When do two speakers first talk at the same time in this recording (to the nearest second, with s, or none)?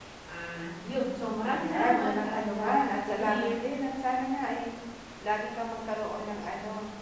1 s